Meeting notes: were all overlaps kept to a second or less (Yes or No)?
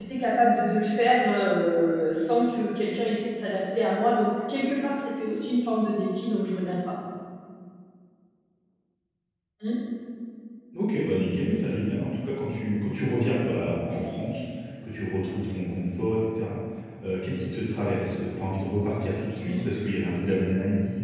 Yes